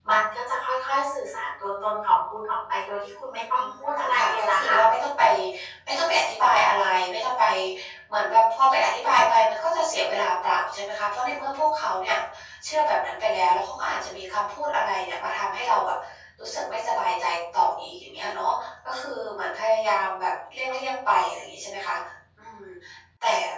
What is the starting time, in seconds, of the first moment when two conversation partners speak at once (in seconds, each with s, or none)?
3.5 s